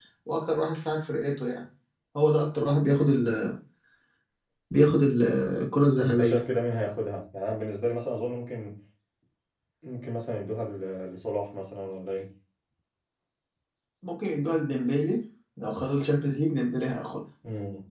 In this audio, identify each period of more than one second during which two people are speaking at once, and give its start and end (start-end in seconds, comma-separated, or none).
none